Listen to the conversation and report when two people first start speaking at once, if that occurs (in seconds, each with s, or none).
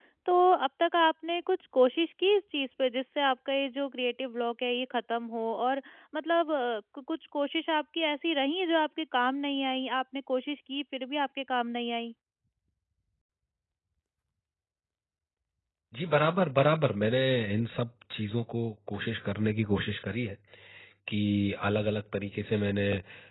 none